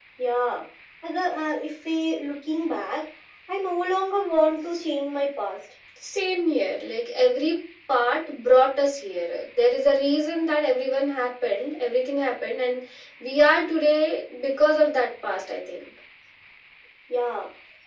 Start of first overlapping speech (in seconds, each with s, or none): none